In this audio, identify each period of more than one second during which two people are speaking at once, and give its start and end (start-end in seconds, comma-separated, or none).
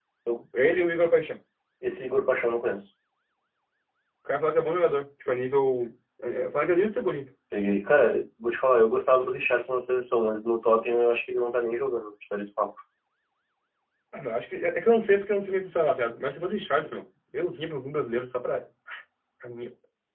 none